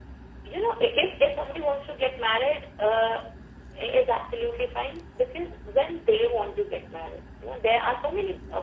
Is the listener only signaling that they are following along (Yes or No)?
Yes